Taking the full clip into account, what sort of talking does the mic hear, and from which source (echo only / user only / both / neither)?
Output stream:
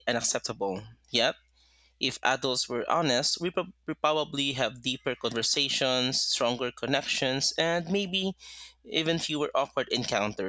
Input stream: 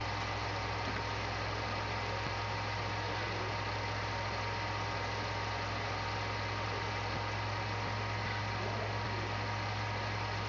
neither